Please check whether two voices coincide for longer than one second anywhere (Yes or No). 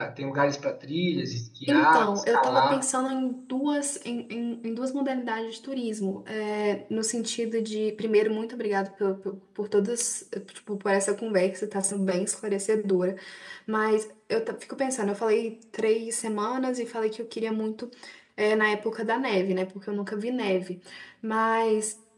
Yes